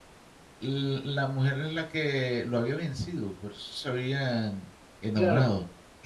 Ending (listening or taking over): taking over